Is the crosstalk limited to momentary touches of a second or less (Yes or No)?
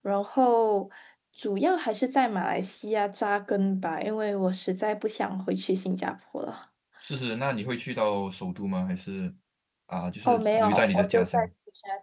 No